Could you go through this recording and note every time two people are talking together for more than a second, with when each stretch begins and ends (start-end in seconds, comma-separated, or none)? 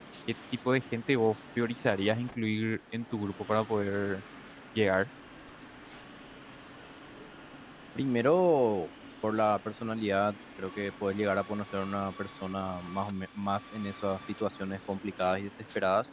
none